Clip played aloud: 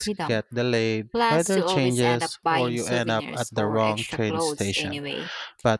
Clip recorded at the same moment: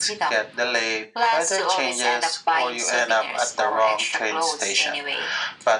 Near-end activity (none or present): none